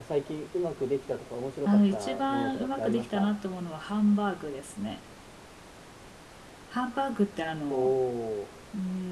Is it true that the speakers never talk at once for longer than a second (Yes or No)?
No